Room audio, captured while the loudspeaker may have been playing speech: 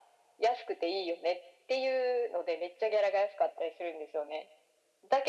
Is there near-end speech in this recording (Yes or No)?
No